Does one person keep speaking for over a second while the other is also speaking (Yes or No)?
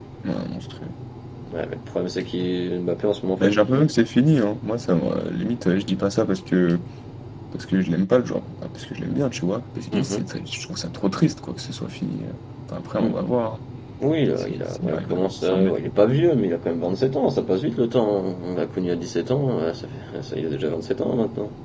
Yes